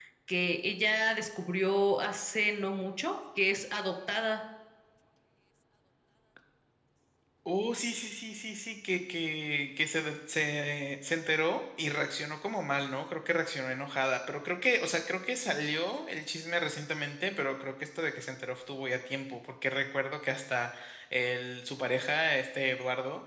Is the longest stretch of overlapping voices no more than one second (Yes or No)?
Yes